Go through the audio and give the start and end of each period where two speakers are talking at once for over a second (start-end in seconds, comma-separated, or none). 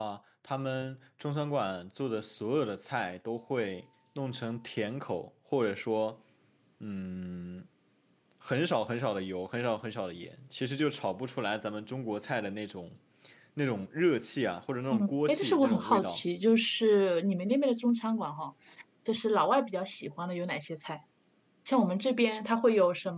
14.9-16.2